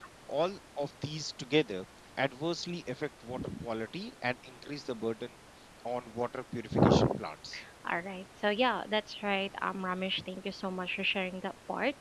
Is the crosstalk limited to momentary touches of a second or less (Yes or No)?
Yes